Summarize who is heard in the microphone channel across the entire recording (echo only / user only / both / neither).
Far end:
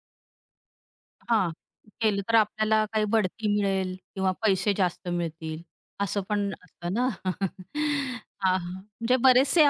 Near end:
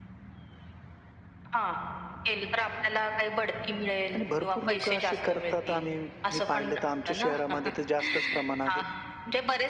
both